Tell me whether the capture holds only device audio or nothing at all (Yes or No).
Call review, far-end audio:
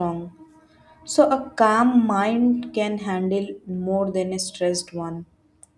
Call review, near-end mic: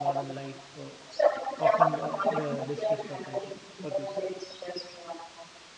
No